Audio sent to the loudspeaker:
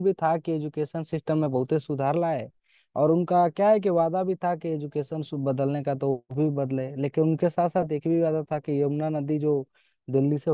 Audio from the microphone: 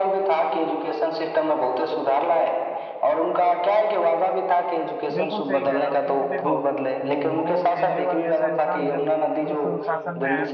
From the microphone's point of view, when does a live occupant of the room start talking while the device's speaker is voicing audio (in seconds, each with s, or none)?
5.1 s